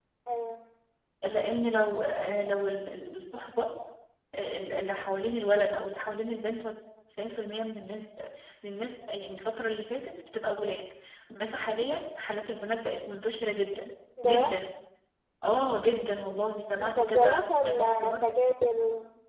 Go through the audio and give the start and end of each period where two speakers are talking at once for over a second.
16.8-18.2

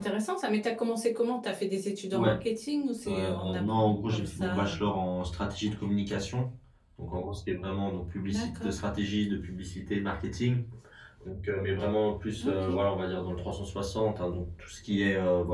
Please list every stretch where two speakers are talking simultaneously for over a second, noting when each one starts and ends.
3.1-4.7

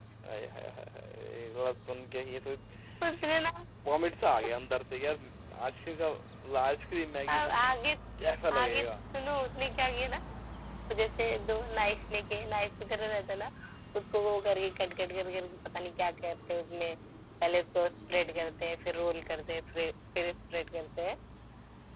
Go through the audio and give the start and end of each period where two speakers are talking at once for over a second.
none

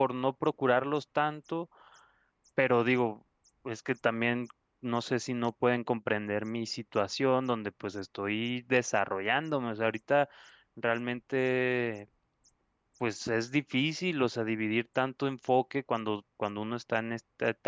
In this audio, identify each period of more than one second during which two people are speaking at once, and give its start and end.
none

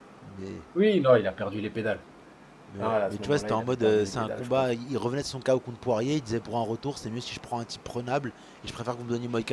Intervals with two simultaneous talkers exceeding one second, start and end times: 2.8-4.7

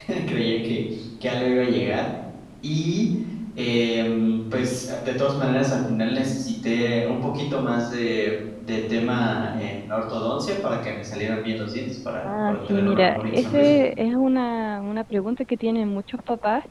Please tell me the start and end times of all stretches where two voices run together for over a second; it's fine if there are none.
12.2-13.7

